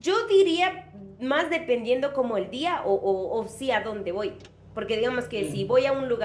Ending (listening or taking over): listening